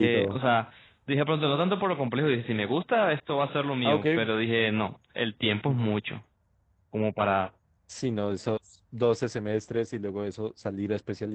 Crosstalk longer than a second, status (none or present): none